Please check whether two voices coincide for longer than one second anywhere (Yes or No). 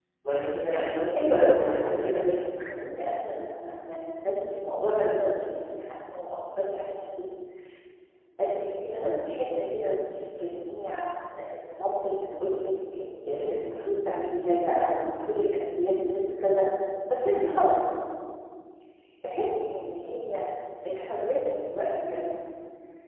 Yes